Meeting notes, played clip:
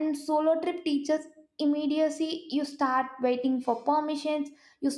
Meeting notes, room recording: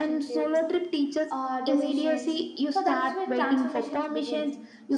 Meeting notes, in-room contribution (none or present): present